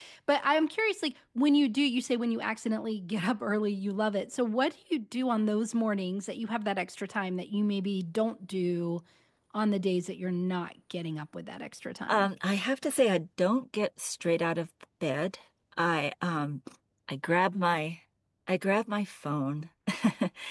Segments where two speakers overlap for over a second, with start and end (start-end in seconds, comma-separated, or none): none